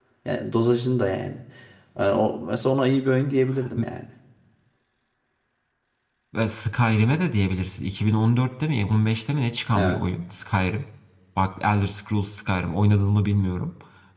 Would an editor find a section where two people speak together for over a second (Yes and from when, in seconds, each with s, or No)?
No